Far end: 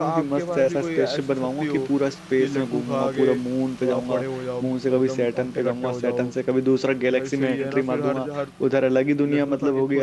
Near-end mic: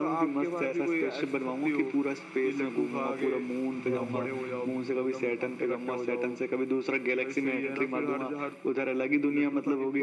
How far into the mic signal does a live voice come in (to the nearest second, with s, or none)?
4 s